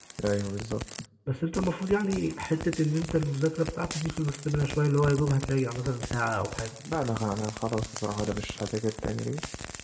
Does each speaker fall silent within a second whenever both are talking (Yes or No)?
Yes